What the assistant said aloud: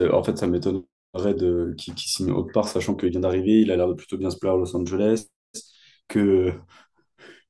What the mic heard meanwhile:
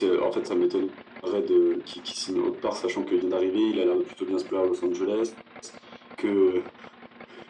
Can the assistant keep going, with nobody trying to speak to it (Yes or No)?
Yes